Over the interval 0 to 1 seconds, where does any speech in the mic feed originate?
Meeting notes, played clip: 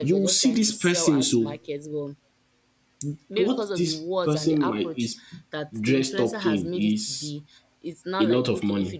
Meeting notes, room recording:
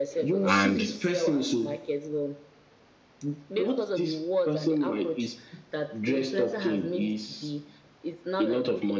both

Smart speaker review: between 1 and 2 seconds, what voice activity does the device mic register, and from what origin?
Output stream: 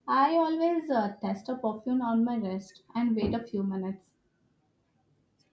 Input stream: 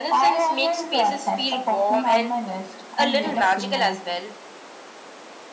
both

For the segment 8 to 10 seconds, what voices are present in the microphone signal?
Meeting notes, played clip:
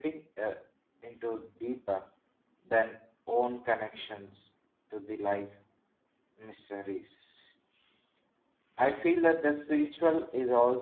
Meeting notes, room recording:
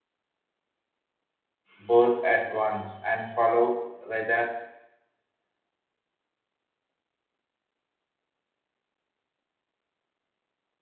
neither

